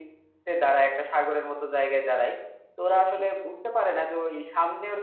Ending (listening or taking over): listening